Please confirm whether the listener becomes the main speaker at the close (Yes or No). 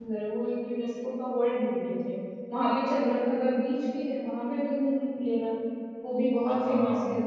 Yes